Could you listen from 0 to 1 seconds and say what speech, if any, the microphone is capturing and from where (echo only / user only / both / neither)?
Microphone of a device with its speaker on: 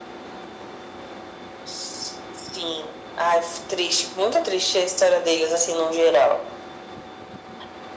neither